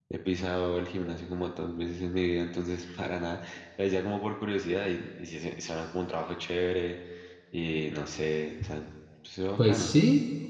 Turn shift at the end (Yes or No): Yes